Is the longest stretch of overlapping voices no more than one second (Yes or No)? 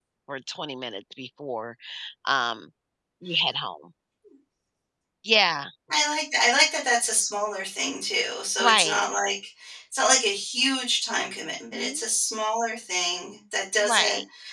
Yes